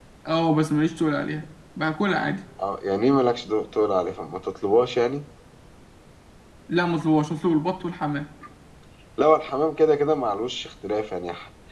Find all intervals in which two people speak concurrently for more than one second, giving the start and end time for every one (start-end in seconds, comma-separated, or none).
none